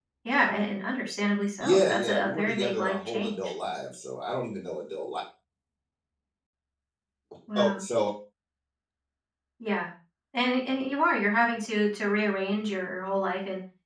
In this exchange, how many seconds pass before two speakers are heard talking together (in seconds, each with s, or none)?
1.6 s